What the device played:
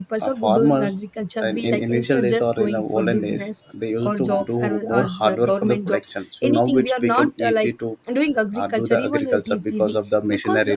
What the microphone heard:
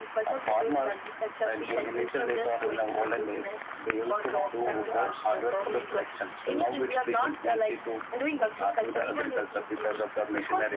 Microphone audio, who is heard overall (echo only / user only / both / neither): echo only